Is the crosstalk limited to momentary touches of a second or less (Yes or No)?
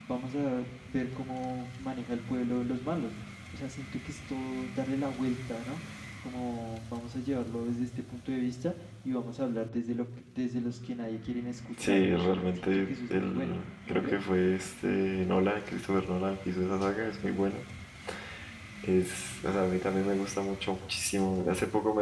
No